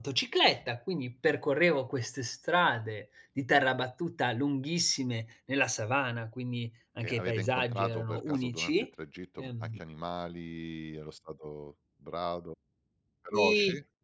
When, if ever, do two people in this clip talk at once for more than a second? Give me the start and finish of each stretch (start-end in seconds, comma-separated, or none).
7.0-8.7